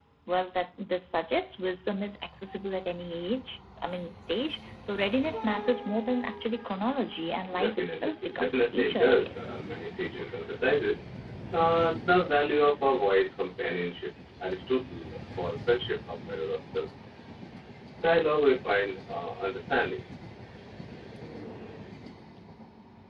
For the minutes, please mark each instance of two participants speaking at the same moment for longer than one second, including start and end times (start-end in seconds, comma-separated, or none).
7.6-9.6